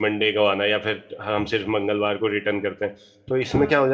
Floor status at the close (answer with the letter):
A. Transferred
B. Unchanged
B